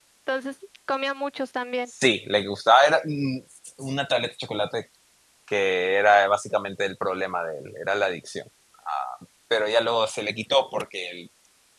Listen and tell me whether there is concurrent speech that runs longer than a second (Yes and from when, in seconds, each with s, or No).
No